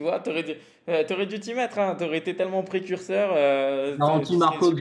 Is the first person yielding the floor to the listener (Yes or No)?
Yes